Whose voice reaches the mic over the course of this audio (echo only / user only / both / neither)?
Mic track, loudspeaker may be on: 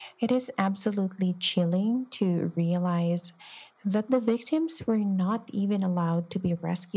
echo only